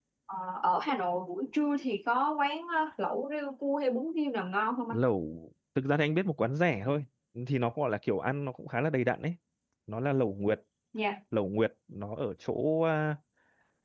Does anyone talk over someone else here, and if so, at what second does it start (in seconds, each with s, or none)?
none